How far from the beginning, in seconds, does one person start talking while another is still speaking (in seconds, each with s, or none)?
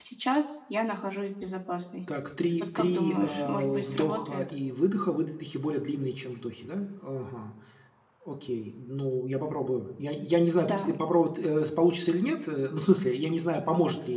2.8 s